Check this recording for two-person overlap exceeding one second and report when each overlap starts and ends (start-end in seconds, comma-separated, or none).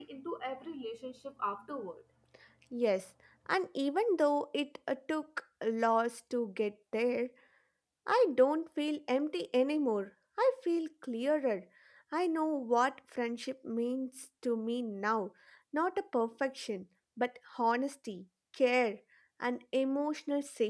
none